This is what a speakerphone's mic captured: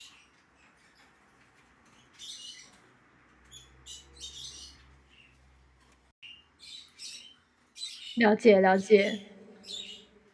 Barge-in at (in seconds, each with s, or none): 8.2 s